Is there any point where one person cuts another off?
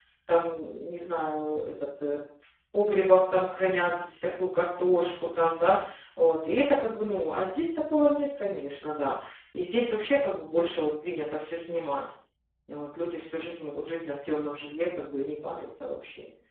No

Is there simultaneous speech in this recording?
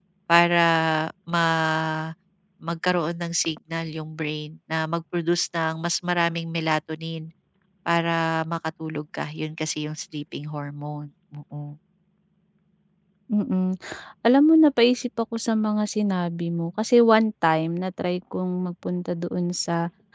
No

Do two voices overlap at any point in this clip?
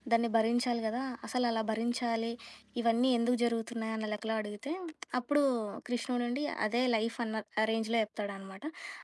No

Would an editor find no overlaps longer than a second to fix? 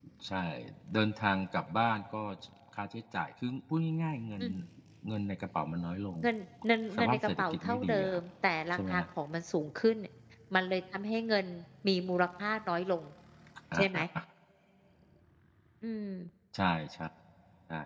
No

